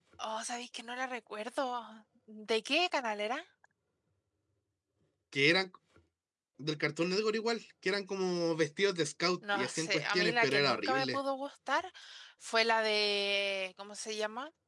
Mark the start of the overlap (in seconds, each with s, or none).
9.4 s